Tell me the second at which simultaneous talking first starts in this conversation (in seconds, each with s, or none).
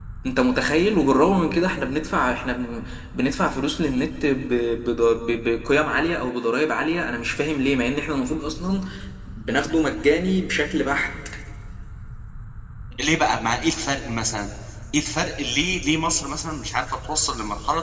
none